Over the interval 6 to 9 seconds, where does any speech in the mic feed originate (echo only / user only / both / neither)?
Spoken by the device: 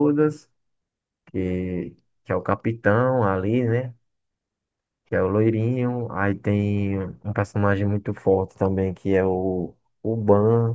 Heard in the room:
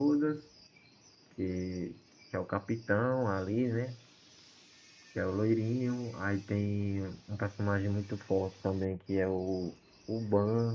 echo only